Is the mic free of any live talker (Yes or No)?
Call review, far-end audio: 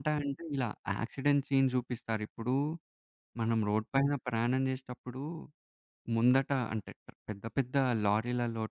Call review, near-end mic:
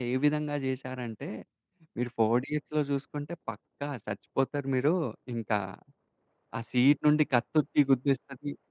No